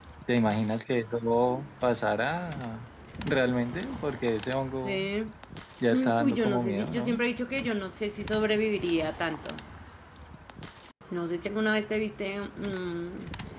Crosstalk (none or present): present